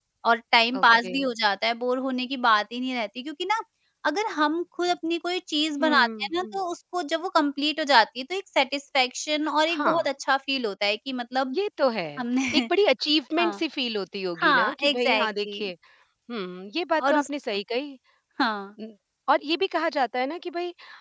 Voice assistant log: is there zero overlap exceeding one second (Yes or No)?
No